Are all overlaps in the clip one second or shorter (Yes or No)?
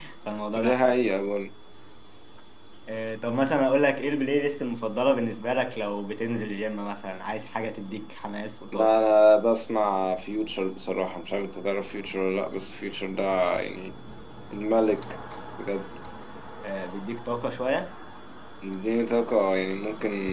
Yes